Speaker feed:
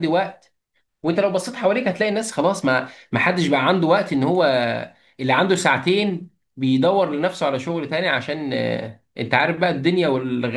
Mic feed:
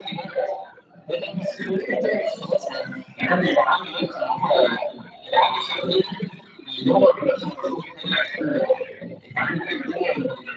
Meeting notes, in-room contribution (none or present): none